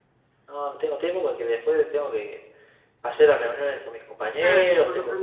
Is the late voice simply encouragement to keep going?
No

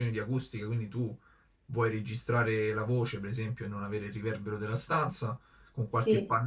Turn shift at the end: No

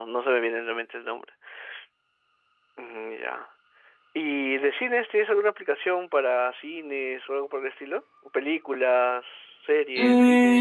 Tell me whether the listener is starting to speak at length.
Yes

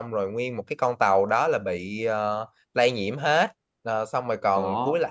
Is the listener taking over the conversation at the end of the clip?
No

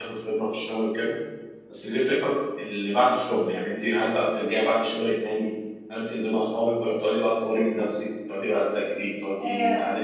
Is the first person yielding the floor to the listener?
No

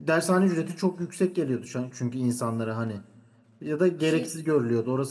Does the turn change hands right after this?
No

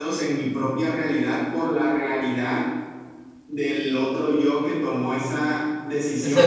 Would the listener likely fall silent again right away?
Yes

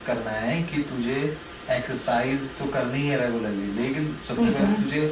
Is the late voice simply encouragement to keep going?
Yes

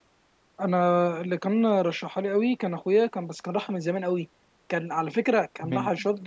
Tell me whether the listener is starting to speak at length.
No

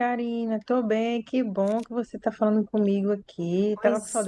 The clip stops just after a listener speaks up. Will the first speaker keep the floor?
No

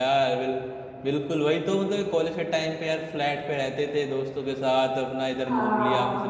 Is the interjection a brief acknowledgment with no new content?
Yes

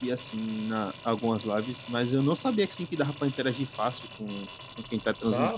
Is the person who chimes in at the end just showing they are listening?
No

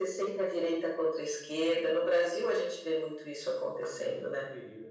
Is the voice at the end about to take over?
Yes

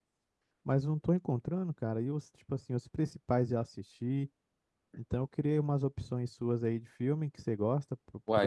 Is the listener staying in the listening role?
No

